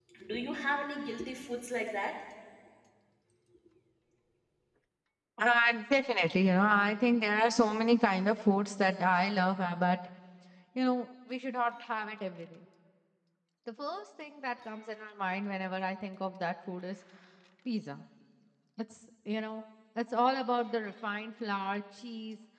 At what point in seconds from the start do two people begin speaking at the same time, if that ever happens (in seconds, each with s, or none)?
none